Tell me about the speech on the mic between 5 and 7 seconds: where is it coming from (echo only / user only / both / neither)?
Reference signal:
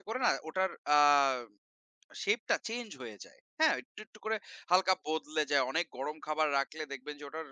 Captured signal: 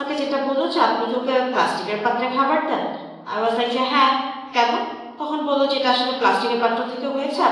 user only